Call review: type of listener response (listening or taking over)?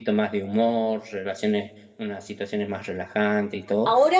taking over